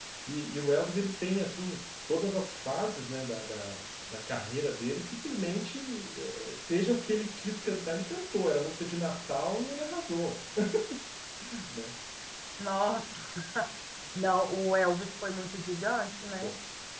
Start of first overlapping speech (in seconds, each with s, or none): none